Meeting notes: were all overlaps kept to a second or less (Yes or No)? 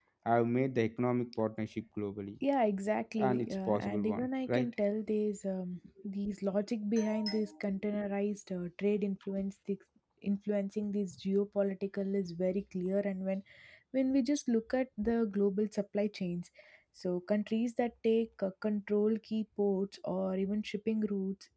No